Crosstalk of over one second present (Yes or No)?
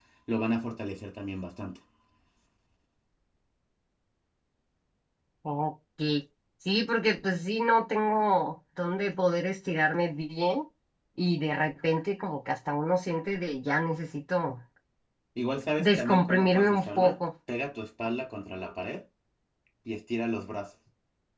Yes